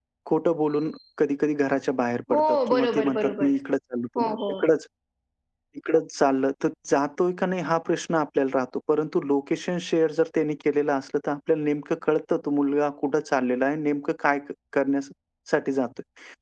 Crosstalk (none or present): present